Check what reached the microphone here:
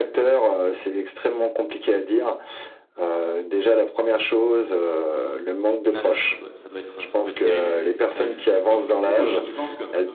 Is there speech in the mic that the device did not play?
Yes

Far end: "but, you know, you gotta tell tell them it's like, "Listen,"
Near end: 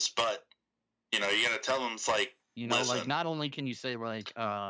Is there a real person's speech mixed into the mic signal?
Yes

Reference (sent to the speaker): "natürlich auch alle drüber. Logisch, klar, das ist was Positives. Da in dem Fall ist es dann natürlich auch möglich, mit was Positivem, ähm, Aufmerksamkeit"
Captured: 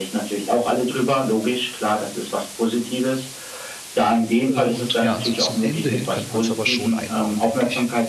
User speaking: Yes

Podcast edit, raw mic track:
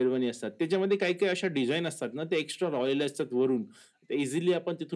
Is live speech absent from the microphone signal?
Yes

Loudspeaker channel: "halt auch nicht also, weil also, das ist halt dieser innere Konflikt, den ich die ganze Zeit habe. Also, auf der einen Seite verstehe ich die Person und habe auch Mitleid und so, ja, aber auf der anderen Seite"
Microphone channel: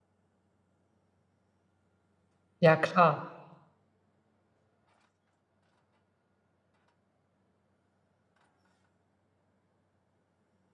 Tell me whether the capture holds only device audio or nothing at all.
No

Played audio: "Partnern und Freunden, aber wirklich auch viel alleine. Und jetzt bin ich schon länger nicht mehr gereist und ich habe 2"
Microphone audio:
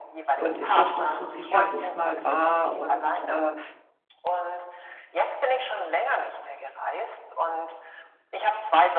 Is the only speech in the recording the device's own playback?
No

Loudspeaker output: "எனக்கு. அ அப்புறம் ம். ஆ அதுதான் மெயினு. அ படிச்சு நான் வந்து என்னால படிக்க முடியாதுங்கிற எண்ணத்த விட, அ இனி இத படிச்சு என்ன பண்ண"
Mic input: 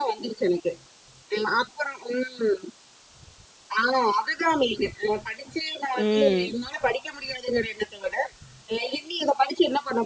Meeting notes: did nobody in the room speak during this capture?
No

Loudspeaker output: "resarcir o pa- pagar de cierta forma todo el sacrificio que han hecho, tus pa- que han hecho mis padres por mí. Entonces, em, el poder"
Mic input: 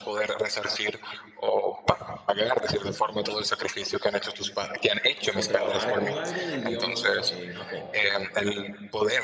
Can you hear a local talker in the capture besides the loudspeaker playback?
Yes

